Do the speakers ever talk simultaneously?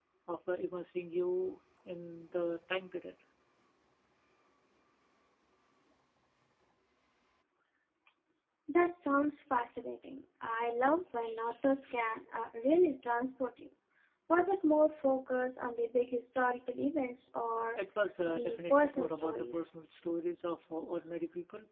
Yes, from 18.2 s

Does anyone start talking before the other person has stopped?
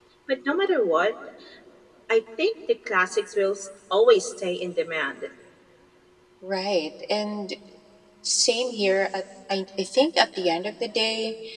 No

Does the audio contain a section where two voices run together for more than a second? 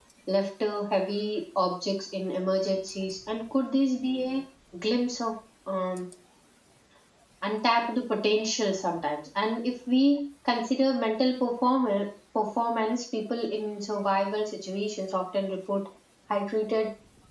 No

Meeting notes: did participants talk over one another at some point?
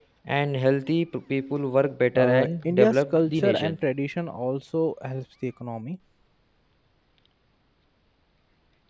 Yes, from 2.1 s

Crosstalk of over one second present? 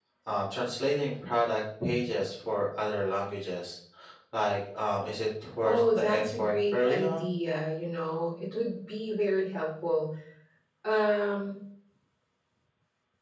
Yes, from 5.6 s

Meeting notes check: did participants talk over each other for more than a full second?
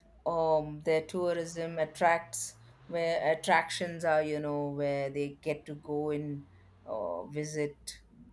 No

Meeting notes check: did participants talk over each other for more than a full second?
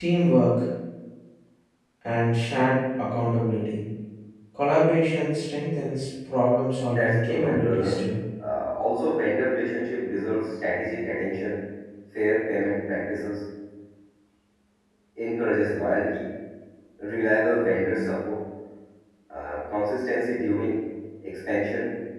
Yes, from 6.9 s

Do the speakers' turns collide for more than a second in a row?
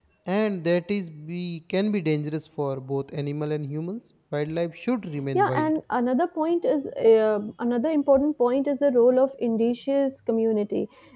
No

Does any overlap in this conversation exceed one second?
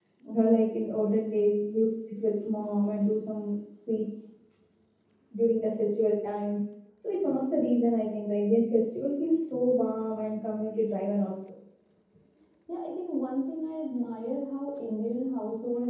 No

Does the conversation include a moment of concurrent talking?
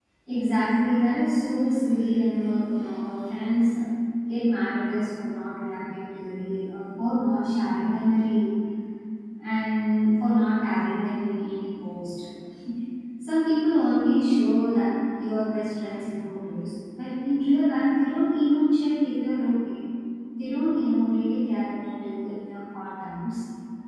No

